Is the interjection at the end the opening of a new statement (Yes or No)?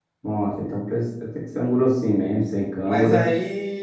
Yes